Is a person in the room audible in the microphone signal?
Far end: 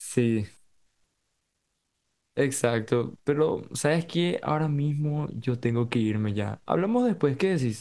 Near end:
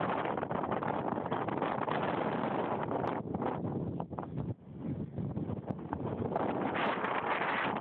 No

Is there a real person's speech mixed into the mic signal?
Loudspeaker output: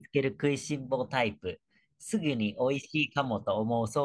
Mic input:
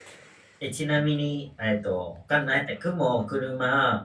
Yes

